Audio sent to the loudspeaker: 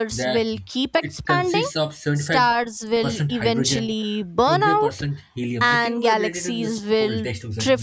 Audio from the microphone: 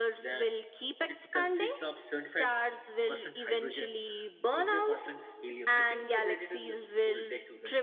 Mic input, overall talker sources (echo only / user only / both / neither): echo only